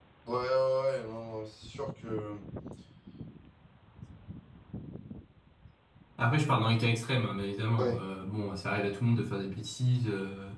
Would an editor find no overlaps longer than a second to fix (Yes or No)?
Yes